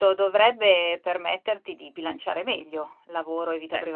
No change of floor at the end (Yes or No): No